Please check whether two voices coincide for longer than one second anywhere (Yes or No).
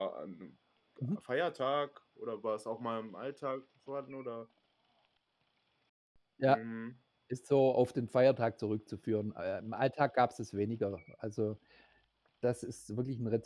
No